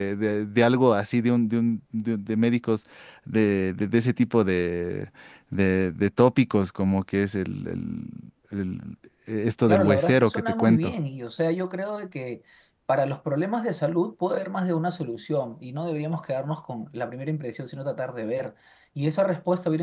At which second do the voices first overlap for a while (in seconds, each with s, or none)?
9.7 s